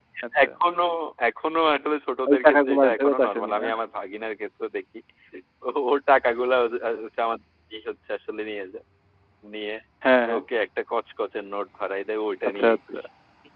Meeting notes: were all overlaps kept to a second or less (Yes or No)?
No